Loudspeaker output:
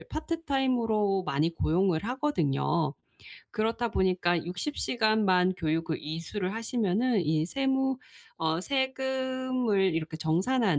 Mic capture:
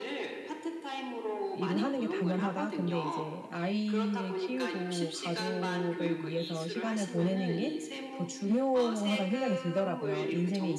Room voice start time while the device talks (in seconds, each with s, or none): 1.5 s